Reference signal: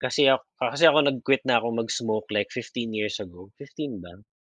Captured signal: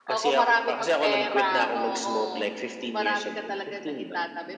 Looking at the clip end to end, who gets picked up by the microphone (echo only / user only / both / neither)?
both